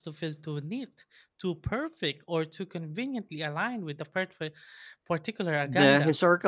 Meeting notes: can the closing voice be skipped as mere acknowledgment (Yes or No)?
No